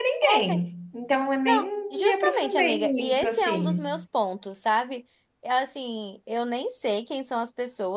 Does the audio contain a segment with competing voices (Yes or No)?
Yes